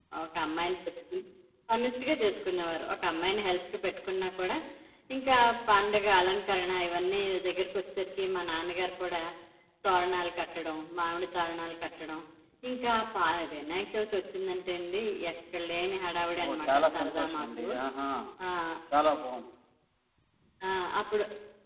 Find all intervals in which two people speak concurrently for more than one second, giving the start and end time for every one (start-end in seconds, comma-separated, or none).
16.4-17.6